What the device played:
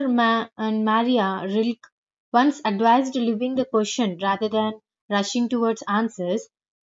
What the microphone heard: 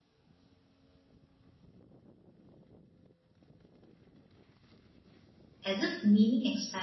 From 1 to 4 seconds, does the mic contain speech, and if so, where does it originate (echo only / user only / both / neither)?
neither